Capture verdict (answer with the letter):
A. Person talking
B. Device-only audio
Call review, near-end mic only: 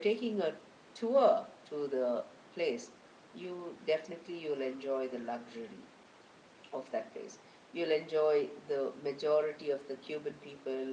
B